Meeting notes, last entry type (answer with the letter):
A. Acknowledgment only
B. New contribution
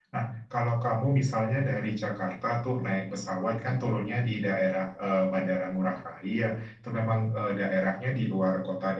A